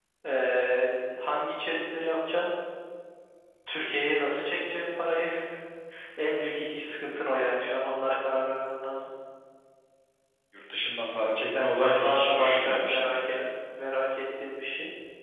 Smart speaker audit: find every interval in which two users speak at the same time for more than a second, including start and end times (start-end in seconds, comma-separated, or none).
11.6-13.4